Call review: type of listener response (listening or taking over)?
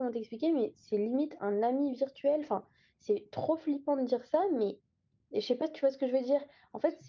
listening